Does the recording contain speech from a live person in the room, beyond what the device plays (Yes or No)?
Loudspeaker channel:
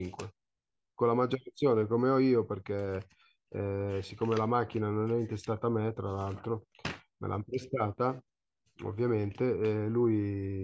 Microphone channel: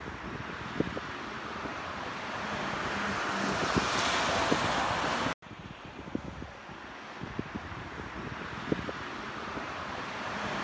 No